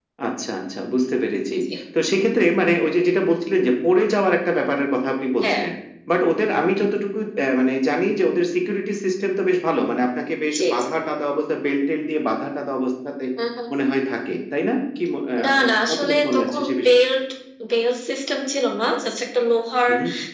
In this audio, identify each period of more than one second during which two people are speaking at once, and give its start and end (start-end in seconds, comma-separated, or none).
15.4-16.9